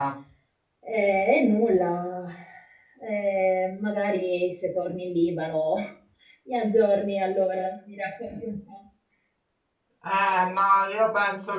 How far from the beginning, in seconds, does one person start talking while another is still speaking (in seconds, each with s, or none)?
none